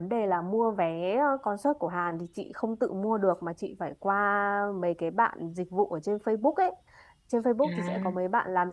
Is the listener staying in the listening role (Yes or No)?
Yes